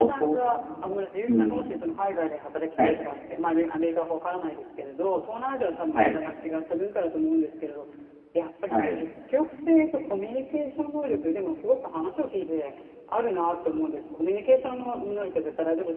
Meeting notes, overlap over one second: none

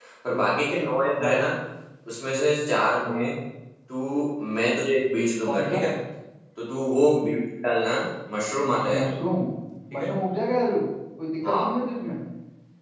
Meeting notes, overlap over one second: none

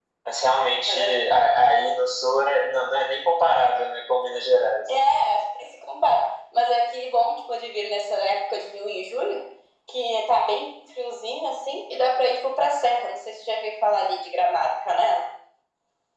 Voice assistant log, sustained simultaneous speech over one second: none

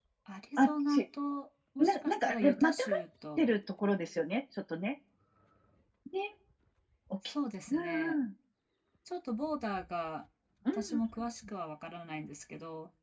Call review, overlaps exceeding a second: present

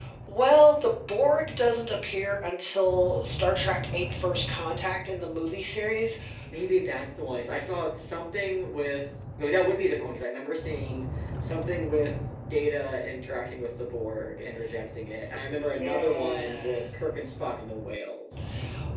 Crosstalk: present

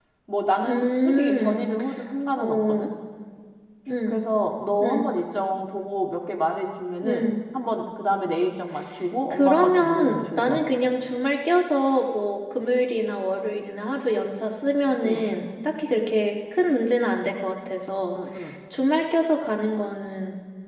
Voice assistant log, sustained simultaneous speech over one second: present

